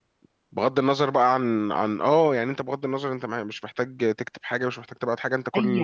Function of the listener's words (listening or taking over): taking over